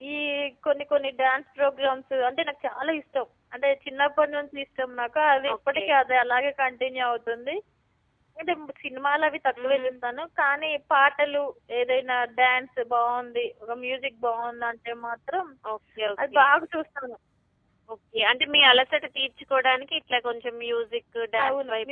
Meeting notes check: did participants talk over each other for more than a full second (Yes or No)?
No